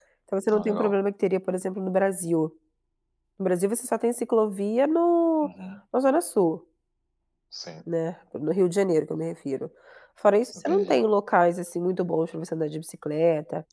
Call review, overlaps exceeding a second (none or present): none